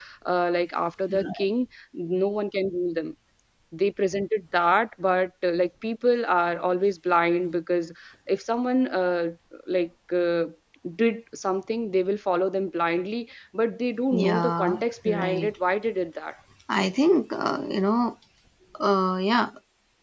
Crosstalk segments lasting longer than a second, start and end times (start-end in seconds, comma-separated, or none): 14.1-15.5